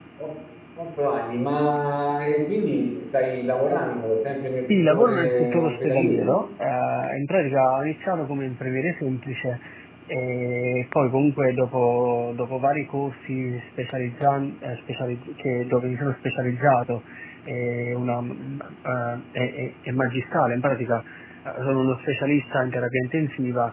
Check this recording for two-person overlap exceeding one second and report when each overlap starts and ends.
4.7-6.4

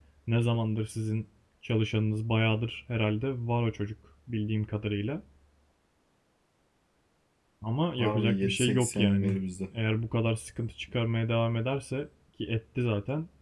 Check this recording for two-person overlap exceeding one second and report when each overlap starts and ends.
8.0-9.3

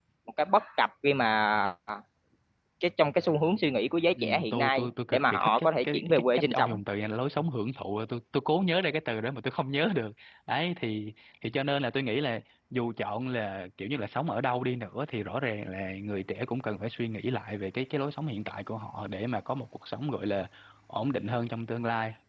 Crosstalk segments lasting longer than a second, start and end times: 4.2-6.7

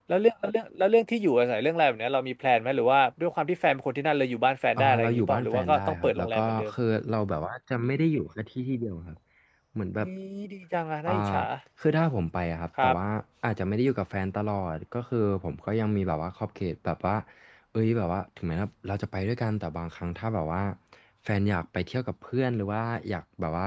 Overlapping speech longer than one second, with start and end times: 4.8-6.7

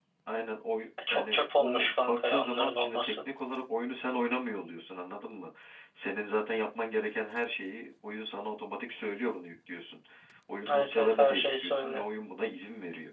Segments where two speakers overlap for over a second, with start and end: 1.1-3.2, 10.7-12.1

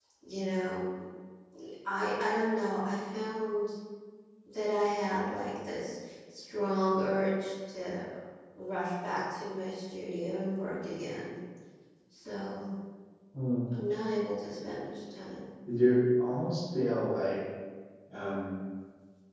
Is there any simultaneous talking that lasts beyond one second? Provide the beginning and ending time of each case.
none

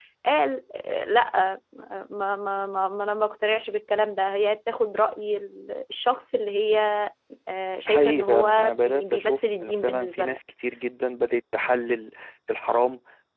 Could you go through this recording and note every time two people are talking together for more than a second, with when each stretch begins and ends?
7.9-10.2

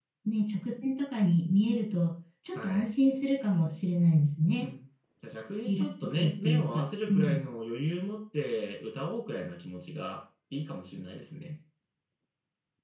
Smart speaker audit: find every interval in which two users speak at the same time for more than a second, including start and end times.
5.7-7.4

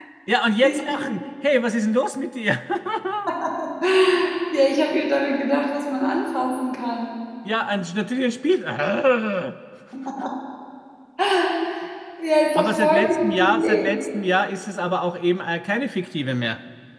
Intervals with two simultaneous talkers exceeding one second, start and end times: 12.7-14.0

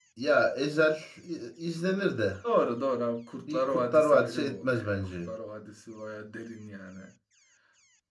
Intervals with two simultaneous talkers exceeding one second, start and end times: 3.5-5.3

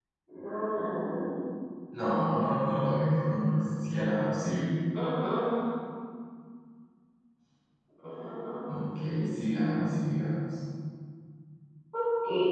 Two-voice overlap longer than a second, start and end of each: none

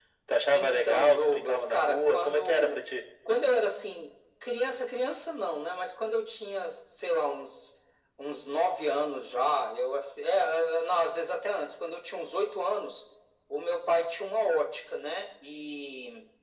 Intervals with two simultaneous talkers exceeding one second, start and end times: 0.5-2.9

